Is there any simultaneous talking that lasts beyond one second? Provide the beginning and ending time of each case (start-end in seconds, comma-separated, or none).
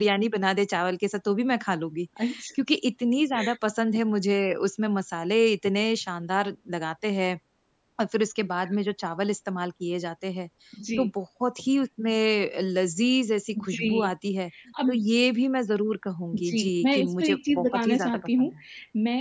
16.3-18.5